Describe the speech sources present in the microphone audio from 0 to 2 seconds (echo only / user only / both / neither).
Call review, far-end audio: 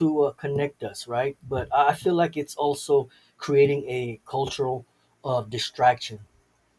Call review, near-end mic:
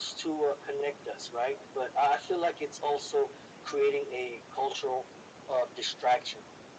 echo only